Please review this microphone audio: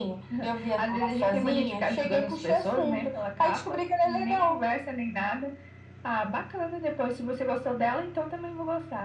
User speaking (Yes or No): No